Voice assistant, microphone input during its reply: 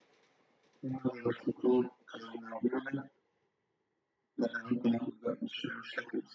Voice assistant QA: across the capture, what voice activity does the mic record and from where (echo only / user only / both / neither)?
echo only